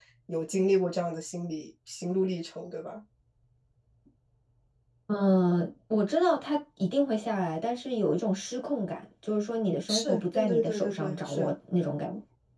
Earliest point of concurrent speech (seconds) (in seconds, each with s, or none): 9.9 s